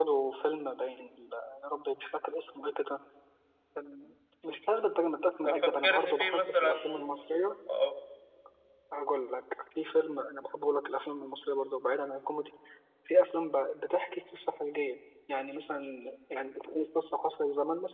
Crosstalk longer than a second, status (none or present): present